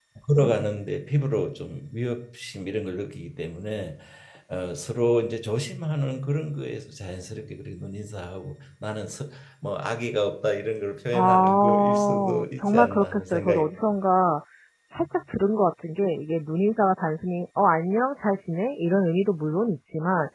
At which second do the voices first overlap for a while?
11.1 s

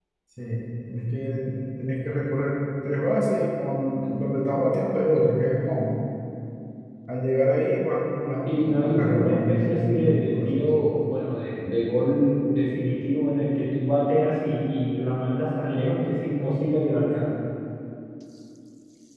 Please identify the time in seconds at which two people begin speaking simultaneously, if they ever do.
8.5 s

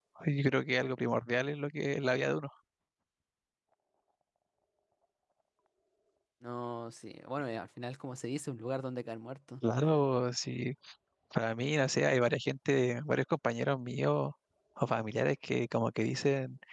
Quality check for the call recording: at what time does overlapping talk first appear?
none

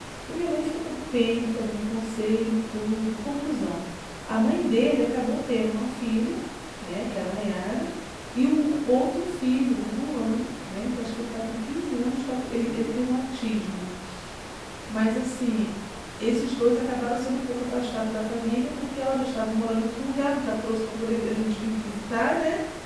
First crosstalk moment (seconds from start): none

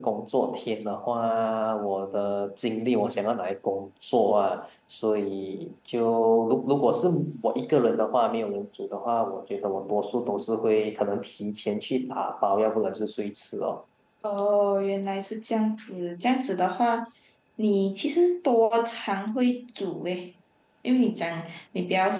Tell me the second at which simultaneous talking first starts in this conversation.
none

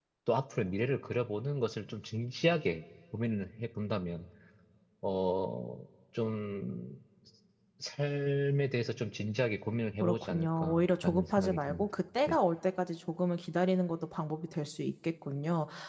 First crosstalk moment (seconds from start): 10.0 s

